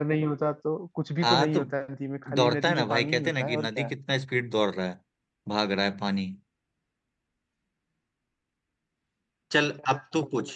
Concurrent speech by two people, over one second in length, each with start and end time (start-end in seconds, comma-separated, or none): 2.3-3.9